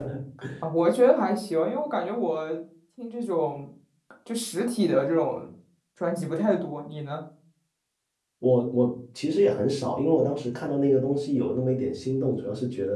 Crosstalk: none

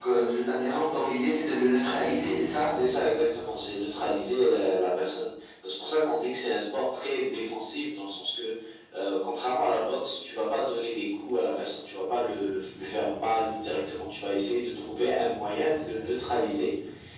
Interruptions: none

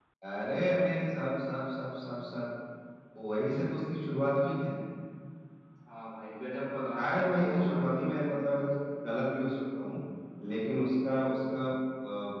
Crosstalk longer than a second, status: present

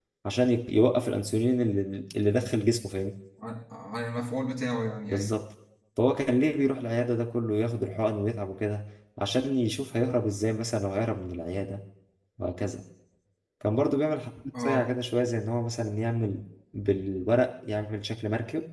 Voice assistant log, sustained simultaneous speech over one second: none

